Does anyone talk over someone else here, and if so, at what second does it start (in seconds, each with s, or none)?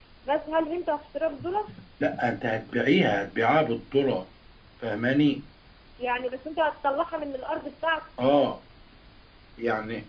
none